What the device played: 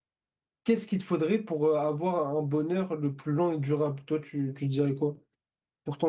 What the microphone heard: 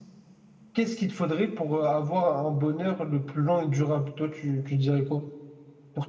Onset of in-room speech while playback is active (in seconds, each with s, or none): none